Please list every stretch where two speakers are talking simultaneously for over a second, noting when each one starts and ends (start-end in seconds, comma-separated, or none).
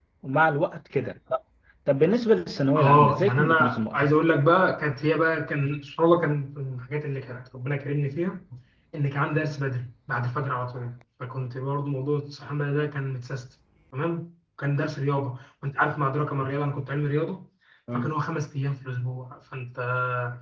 2.8-4.0